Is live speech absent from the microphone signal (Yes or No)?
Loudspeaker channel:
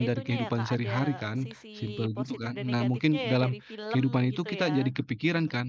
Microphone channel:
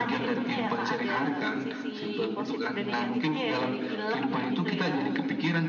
Yes